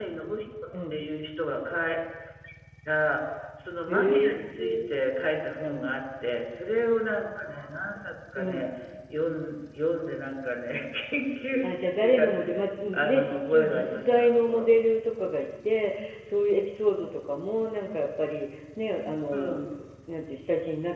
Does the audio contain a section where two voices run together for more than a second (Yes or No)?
Yes